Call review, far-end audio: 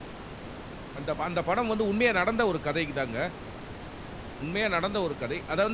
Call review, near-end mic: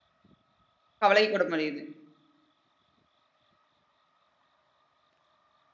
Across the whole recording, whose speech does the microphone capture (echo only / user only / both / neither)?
user only